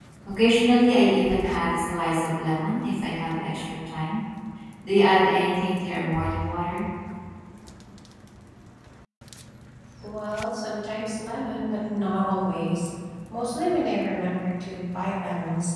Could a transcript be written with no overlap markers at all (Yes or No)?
Yes